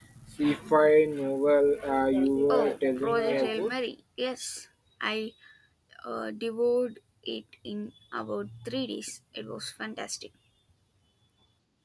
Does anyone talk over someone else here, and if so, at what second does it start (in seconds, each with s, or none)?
2.5 s